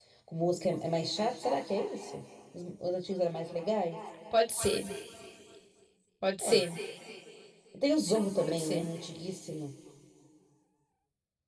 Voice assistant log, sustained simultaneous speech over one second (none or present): none